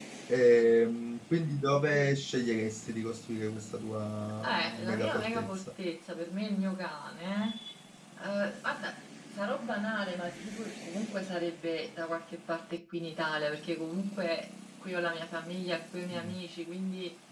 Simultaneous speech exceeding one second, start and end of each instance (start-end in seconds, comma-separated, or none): 4.4-5.7